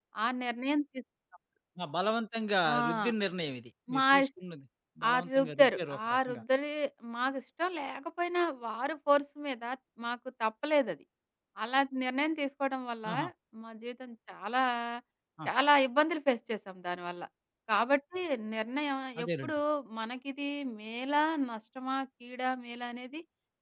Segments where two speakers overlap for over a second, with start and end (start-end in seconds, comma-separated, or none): 5.1-6.4